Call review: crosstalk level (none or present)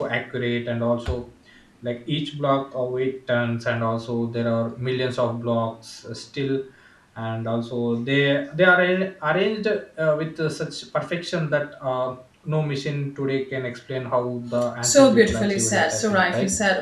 present